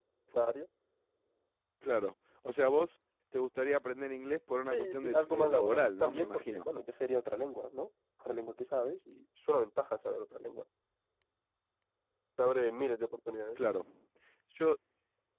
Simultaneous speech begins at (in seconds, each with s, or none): 4.7 s